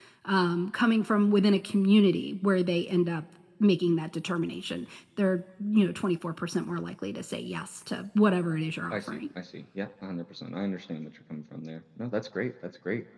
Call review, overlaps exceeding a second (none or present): none